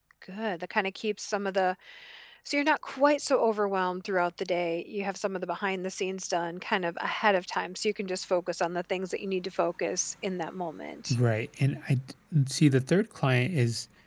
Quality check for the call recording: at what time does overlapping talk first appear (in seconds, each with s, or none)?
none